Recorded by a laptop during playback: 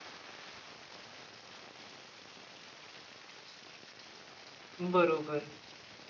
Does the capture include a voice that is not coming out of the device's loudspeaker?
Yes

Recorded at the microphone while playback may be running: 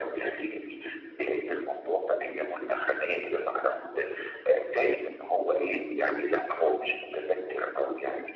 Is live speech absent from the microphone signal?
Yes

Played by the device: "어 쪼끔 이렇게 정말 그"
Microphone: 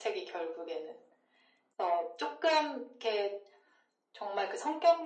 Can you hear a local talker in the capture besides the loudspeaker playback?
No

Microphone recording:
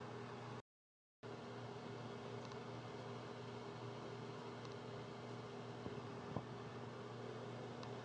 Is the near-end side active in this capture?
No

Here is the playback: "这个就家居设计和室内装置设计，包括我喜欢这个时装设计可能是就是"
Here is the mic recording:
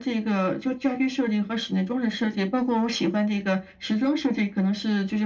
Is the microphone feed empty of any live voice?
Yes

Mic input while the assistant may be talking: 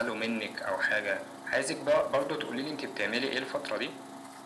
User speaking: No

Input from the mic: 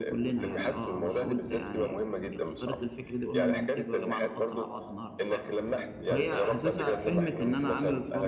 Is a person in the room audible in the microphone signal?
Yes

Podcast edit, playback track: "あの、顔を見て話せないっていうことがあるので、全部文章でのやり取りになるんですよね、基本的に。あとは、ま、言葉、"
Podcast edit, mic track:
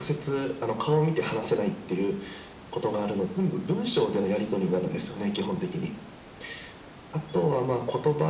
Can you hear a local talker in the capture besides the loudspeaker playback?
No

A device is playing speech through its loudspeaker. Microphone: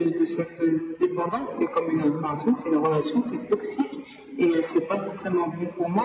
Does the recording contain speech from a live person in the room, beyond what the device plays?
No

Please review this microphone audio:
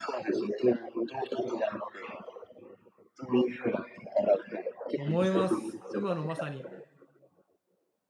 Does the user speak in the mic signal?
Yes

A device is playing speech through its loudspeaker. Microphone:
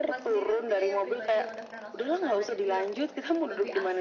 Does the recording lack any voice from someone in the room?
No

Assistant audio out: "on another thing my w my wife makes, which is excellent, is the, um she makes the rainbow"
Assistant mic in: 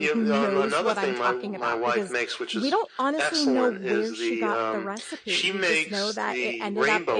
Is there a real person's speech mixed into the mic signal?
Yes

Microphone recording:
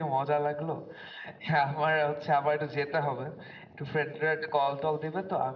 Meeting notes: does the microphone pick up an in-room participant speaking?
No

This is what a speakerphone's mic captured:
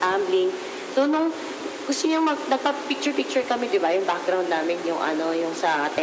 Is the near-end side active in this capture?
No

